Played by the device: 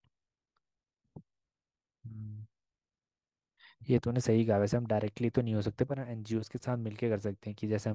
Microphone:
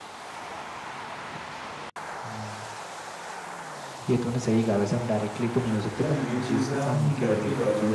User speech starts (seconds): 6.0 s

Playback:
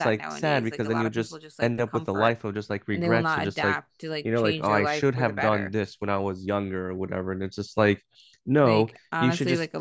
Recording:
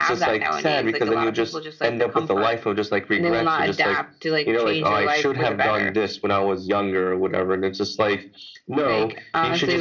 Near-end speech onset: none

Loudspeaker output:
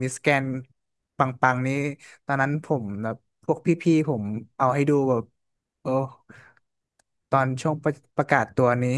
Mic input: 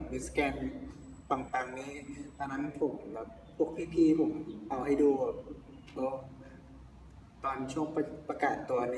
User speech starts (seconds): none

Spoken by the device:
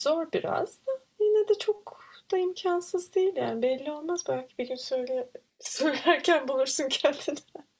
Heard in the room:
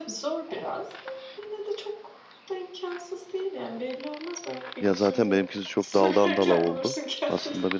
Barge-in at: 4.8 s

